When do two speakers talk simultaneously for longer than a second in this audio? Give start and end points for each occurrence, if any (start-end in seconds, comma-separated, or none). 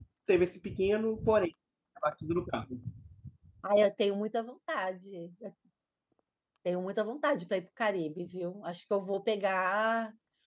none